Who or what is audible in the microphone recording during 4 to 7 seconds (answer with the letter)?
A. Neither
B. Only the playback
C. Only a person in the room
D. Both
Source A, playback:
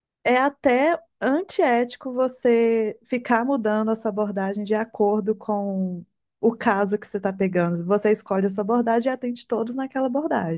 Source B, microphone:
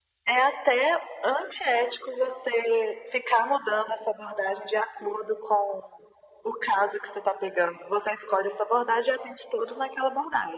B